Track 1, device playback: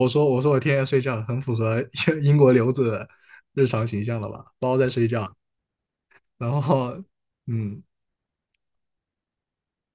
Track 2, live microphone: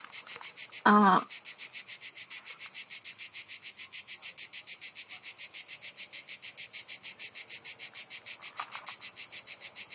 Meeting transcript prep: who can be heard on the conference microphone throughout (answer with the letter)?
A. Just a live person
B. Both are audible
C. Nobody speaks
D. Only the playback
A